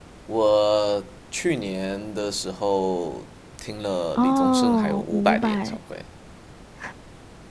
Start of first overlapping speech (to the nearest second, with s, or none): 4 s